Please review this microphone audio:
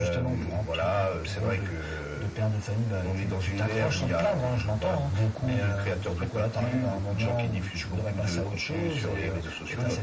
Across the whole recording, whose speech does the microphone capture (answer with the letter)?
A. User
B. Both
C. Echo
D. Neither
C